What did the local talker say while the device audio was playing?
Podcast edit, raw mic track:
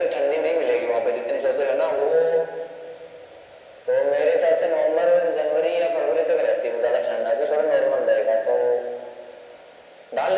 none

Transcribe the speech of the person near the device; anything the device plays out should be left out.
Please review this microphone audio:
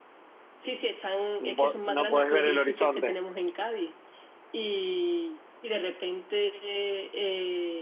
No, po- no podés ver el horizonte.

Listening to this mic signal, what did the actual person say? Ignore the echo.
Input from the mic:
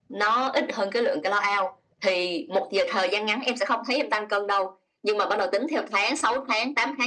none

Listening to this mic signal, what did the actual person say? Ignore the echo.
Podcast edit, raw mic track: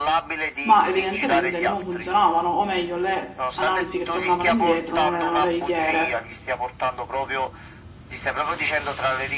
ma evidentemente non funzionavano, o meglio, le analisi che tornavano indietro non erano veritiere.

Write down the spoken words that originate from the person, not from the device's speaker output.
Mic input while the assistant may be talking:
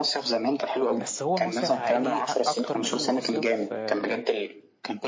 بس هو مصيف عائلي إيه؟ أ- اكتر ما انه مصيف آه،

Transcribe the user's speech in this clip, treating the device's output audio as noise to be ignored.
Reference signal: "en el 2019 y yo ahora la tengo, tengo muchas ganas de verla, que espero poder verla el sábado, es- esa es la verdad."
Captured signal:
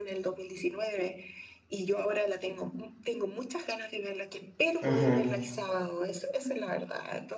Ujú.

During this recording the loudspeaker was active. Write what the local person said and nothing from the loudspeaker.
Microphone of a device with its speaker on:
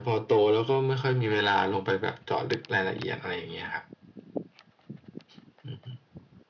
none

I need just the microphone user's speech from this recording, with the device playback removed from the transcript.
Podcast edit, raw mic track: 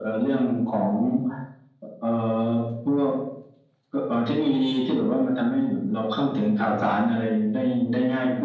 none

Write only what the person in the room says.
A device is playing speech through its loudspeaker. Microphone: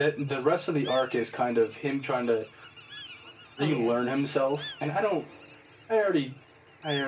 Oh yeah.

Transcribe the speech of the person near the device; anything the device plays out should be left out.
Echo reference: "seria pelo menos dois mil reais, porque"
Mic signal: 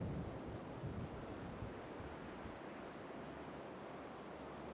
none

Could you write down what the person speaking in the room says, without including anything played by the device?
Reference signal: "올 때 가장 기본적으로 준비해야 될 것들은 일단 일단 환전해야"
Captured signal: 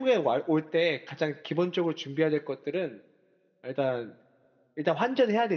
none

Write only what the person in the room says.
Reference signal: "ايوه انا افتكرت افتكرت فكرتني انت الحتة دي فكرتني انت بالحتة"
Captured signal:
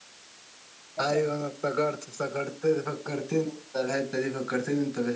كتب

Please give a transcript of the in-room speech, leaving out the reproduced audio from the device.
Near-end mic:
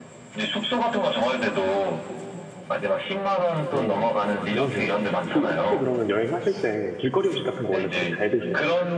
어, 어, 너무 좋은데요. 그 혹시 그러면 여행하실 때 길거리 음식 같은 거 원래 되게 잘 드세요?

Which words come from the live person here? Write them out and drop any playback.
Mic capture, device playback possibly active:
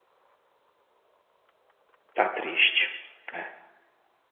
Tá triste. É,

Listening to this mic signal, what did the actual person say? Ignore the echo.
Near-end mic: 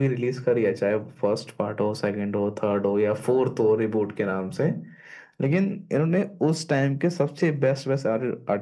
none

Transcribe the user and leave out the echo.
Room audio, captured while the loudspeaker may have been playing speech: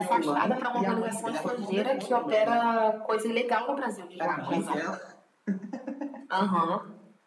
none

